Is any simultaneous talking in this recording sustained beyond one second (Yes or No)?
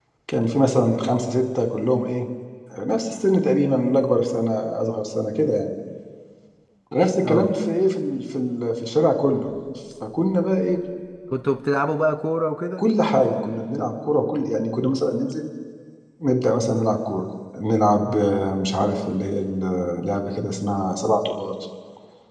No